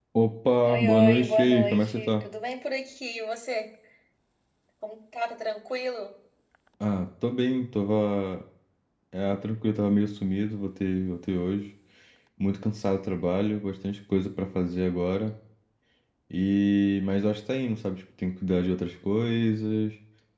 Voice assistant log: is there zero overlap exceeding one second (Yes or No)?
No